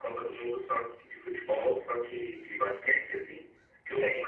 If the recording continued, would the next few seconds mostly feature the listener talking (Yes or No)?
No